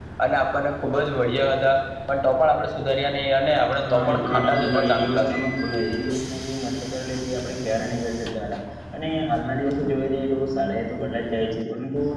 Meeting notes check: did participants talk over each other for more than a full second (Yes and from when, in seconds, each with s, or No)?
Yes, from 3.8 s